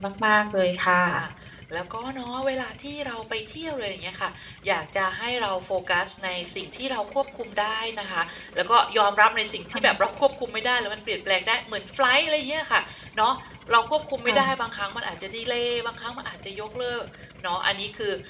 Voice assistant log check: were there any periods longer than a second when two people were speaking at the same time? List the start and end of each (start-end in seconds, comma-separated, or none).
none